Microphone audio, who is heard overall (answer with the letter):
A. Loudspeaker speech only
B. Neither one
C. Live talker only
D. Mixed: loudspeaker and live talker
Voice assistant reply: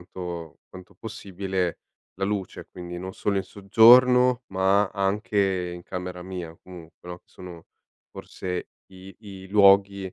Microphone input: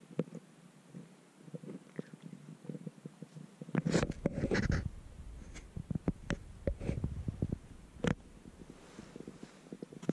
B